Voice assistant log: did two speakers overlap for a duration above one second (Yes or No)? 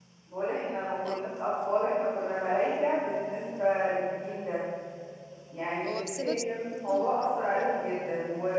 Yes